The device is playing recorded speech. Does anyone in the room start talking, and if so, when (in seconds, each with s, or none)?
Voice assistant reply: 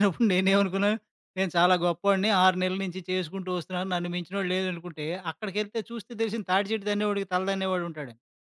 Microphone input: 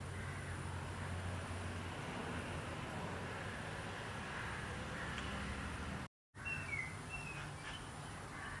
none